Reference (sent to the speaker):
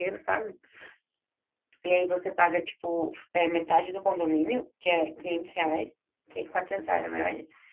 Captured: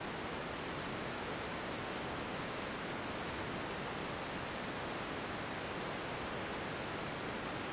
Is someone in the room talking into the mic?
No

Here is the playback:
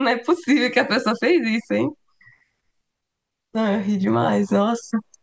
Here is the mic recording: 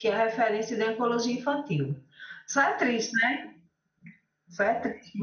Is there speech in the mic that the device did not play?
Yes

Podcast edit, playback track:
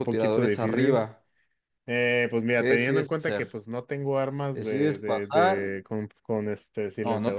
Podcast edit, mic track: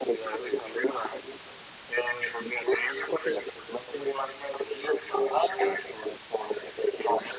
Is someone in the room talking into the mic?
No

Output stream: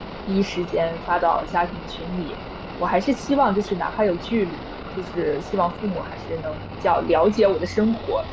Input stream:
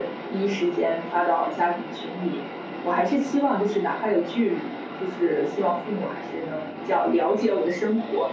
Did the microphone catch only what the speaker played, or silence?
Yes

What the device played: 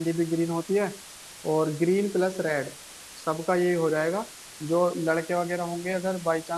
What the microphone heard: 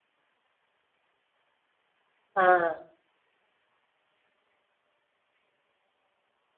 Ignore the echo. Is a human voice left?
Yes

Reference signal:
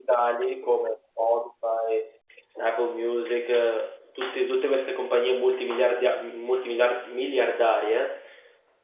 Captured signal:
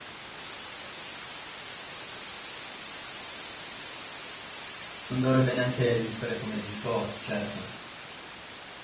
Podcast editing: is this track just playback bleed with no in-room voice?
No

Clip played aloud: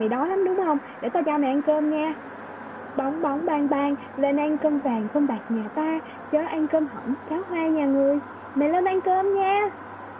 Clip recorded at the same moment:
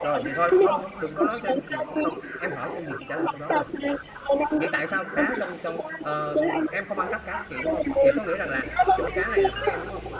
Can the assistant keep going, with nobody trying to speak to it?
No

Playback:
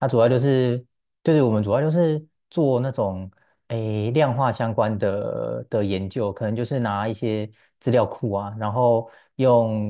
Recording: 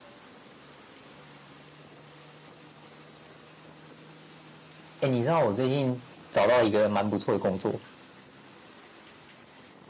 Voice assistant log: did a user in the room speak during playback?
Yes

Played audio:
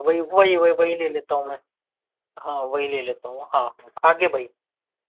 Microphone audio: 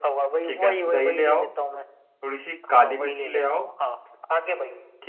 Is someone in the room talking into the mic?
Yes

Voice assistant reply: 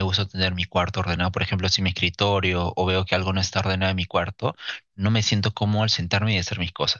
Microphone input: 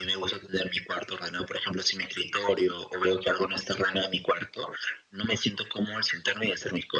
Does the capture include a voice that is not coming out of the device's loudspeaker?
No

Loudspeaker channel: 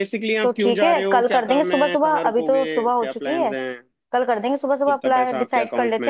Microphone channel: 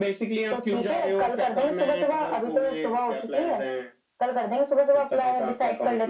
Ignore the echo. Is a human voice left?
No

